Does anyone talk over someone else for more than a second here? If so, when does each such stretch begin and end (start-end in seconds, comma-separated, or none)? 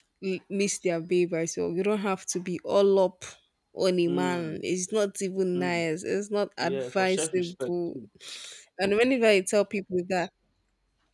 6.6-8.0